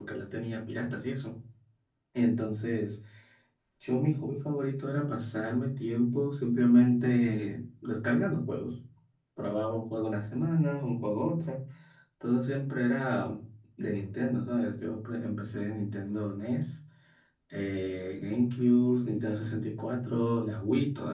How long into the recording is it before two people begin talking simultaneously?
none

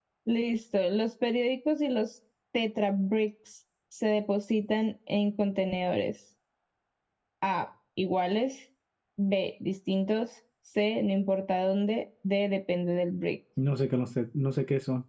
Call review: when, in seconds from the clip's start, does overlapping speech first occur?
none

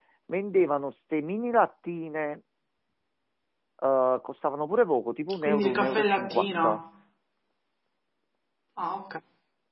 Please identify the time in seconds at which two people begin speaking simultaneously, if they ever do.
5 s

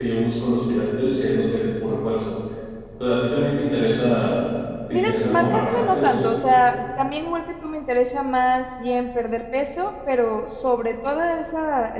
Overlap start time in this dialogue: 5 s

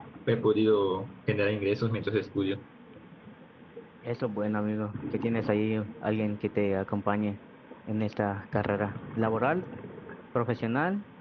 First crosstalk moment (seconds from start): none

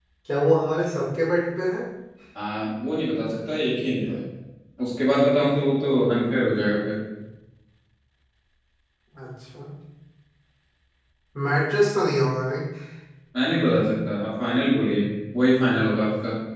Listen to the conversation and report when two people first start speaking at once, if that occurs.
none

